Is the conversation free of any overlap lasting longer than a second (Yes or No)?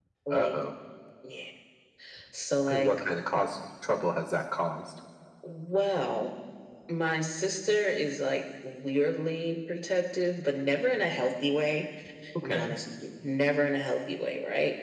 Yes